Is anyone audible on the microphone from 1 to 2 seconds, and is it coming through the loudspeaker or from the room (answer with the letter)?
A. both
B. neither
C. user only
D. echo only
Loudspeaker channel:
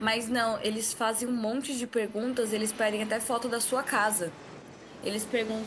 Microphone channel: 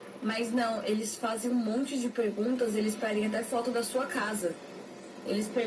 D